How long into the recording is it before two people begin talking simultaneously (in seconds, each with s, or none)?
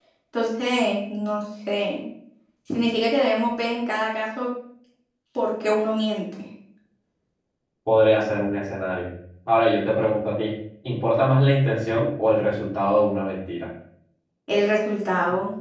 none